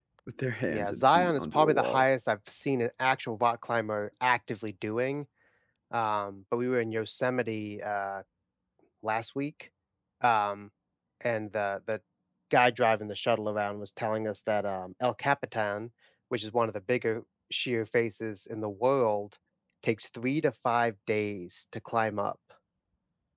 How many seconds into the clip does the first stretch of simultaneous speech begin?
0.7 s

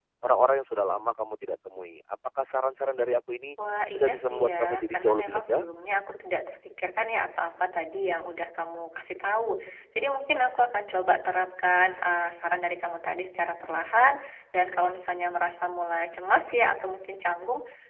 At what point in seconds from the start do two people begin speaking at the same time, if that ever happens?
3.9 s

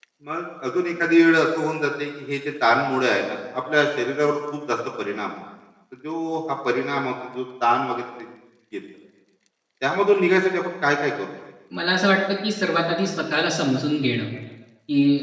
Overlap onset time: none

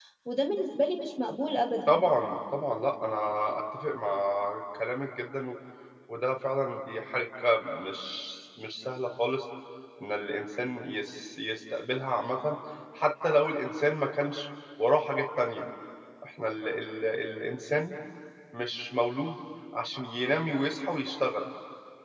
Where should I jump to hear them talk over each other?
none

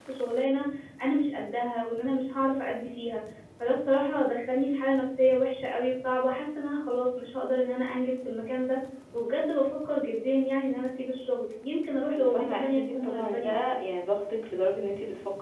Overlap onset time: 12.1 s

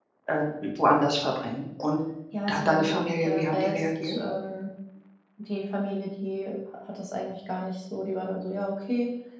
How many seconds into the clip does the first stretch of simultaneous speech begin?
2.5 s

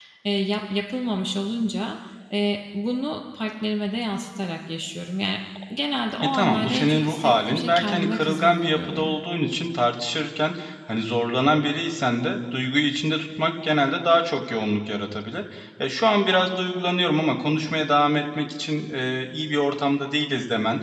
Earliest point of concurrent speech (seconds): 6.1 s

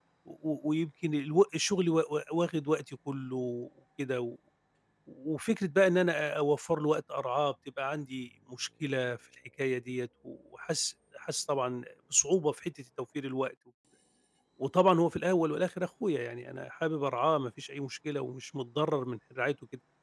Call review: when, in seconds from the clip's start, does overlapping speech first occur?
none

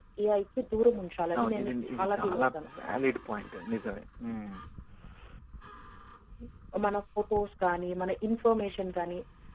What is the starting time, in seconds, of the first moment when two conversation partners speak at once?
1.3 s

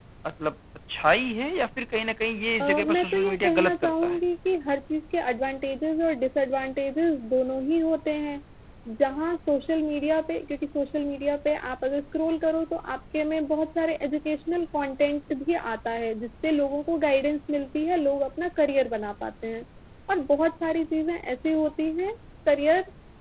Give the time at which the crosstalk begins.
2.6 s

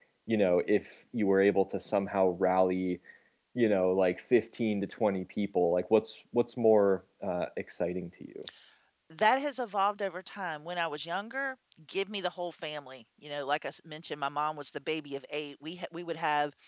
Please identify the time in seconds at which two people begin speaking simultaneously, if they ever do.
none

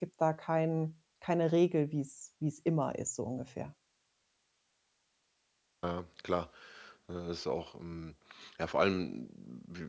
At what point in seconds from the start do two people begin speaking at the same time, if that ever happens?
none

